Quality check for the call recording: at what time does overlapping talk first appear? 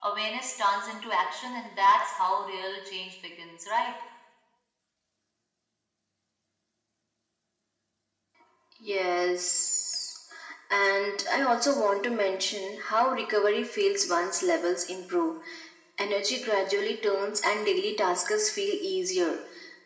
none

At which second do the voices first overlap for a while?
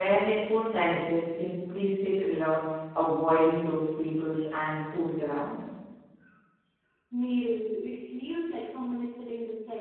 none

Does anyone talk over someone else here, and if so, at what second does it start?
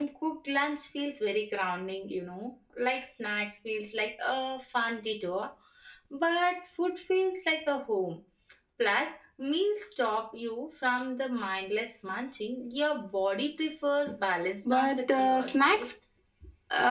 15 s

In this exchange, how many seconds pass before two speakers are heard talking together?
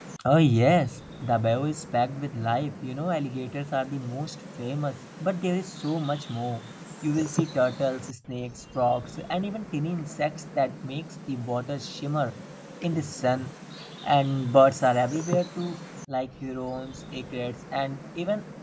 none

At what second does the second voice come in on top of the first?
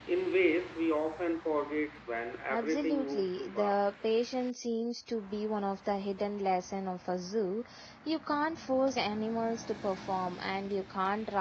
3 s

